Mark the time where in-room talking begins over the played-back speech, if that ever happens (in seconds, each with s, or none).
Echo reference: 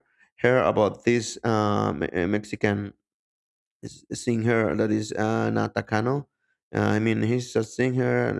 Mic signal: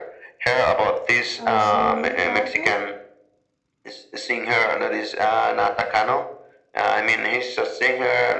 1.4 s